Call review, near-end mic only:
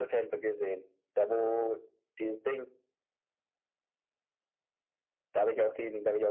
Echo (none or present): present